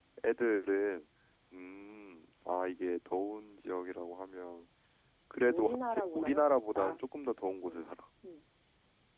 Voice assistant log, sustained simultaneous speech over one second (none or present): present